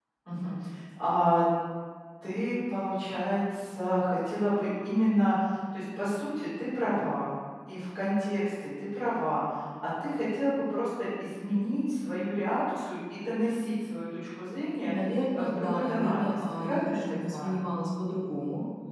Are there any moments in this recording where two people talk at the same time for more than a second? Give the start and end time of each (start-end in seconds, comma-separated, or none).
15.3-17.6